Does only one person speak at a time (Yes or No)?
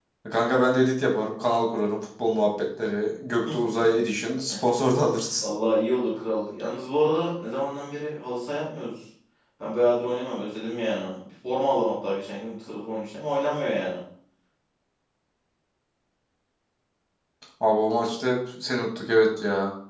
Yes